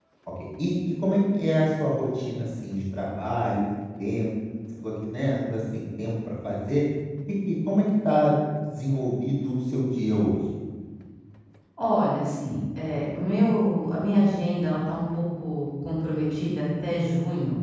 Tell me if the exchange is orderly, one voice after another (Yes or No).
Yes